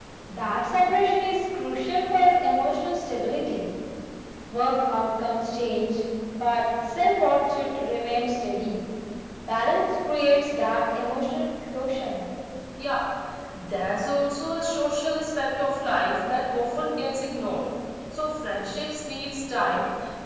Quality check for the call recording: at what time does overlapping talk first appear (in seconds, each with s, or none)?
none